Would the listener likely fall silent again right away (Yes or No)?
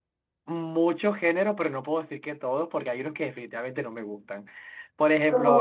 Yes